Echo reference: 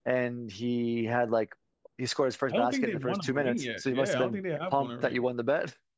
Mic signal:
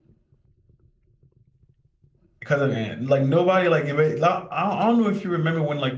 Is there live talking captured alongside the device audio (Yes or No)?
Yes